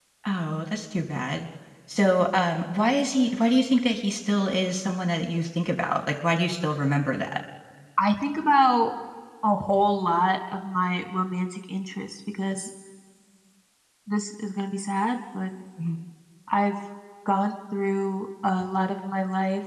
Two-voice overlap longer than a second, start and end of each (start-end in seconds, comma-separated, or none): none